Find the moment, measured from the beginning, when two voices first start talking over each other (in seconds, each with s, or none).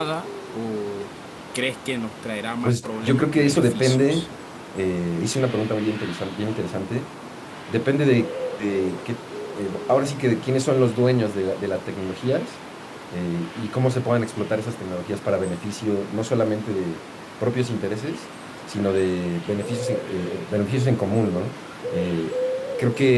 2.6 s